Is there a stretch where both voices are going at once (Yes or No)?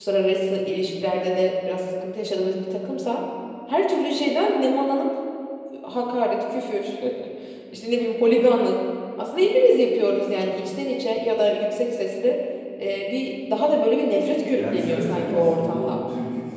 Yes